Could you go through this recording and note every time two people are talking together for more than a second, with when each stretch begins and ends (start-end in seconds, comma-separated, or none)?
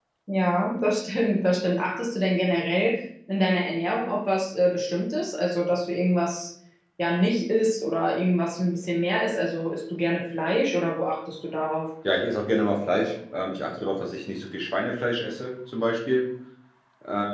none